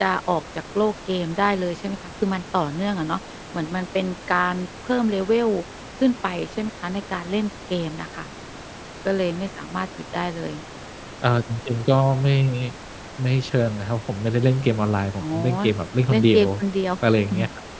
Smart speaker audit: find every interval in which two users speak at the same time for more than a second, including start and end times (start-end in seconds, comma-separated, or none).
none